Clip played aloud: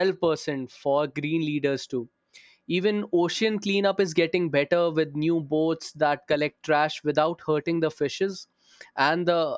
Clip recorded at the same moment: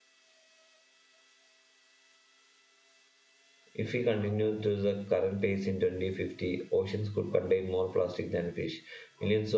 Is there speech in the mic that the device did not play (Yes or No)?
Yes